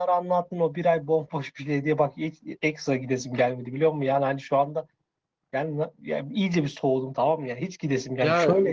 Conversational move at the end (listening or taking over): taking over